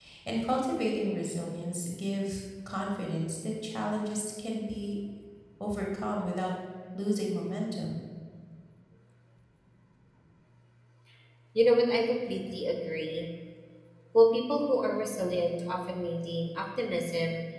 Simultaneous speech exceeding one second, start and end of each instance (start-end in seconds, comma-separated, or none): none